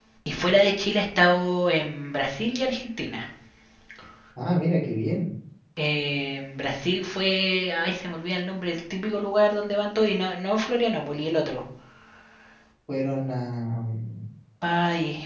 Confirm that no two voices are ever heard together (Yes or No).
Yes